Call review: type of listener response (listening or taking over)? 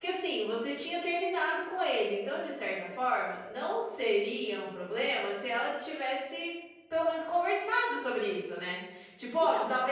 listening